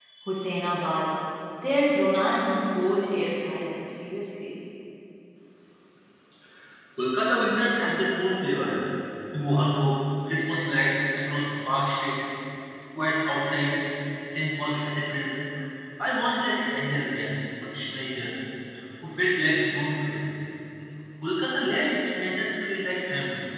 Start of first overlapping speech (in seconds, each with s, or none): none